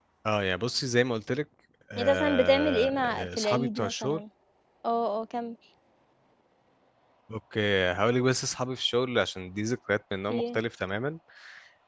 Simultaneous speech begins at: 2 s

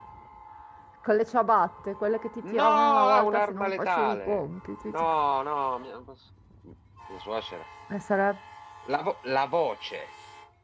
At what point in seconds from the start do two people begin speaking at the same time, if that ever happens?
2 s

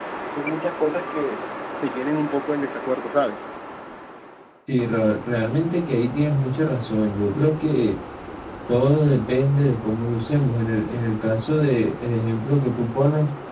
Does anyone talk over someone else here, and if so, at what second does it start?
none

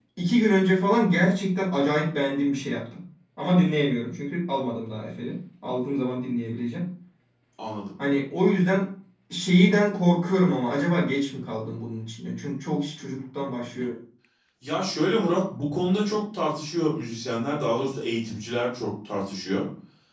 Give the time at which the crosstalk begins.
none

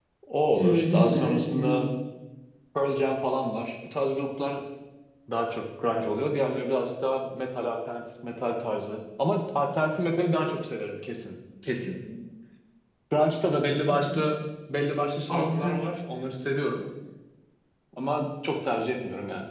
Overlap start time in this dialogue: 1 s

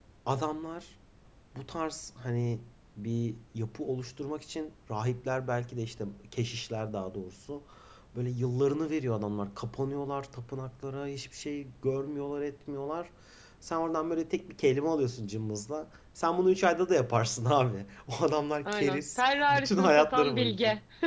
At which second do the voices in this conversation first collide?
19 s

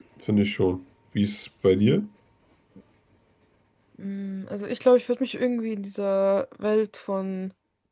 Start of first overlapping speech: none

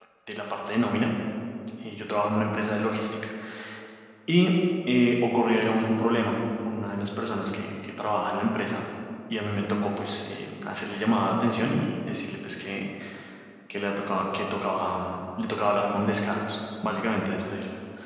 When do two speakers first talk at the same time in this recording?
none

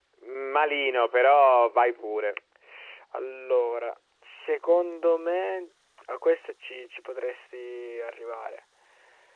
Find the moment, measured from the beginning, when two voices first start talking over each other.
none

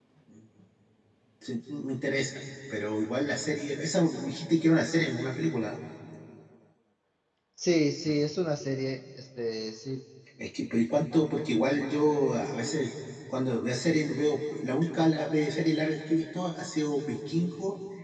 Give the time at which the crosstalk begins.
none

